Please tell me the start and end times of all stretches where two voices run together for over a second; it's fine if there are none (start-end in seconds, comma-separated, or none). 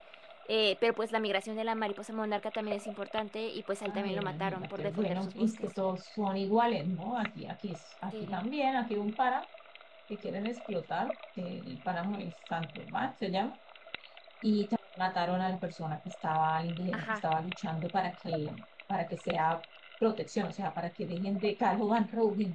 3.9-5.6